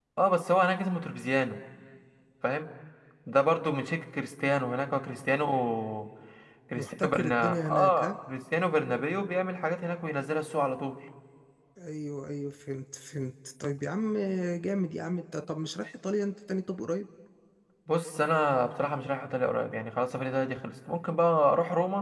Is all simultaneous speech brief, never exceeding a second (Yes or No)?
No